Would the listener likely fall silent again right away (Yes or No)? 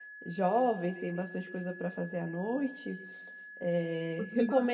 No